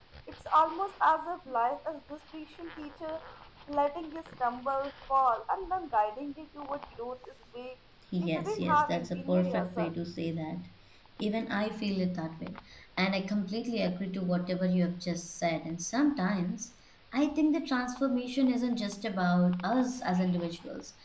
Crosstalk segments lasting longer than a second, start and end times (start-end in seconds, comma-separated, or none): 8.2-9.9